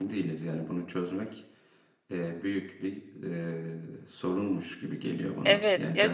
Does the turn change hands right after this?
Yes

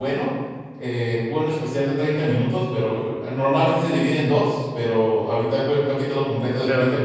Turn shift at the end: Yes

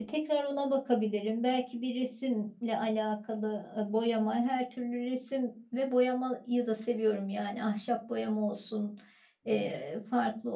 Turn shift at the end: No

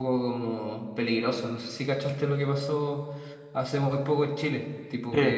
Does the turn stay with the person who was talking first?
Yes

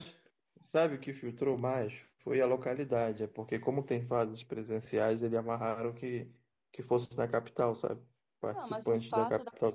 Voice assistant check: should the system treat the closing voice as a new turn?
Yes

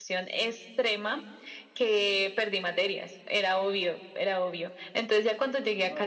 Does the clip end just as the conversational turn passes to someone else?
No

